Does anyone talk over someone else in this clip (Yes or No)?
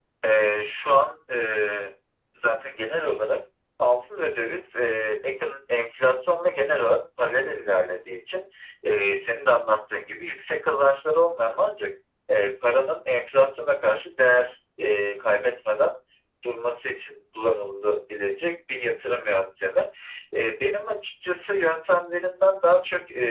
No